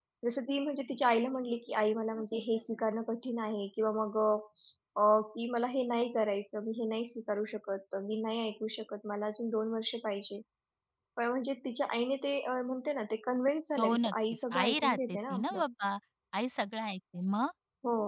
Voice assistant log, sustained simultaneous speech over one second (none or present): present